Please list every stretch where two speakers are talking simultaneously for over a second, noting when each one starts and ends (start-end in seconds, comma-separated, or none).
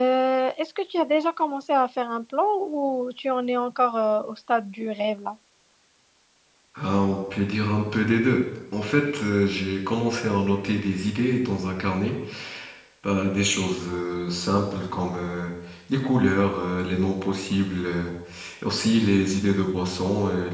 none